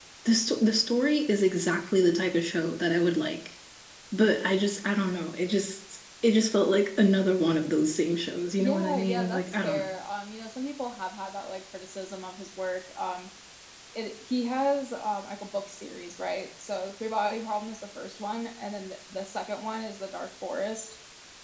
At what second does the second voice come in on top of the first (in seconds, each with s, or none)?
8.6 s